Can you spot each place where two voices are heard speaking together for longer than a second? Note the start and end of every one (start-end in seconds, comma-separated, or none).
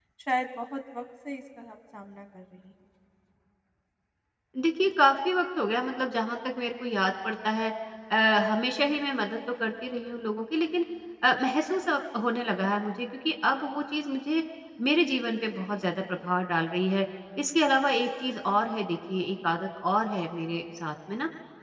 none